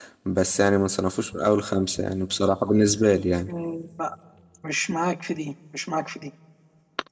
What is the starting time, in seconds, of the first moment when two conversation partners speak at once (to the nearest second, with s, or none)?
none